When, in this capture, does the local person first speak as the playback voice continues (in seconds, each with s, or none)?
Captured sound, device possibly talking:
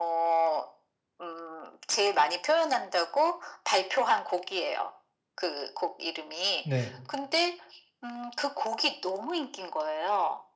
6.6 s